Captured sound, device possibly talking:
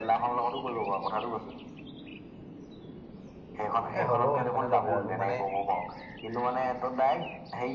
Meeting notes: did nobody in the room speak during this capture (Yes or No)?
No